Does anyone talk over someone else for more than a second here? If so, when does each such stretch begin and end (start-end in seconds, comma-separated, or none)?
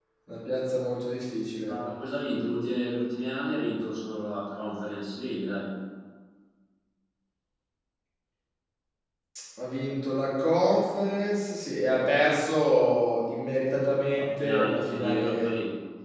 14.2-15.5